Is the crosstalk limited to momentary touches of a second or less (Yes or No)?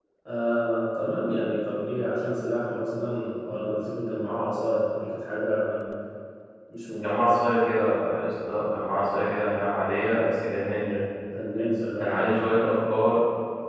Yes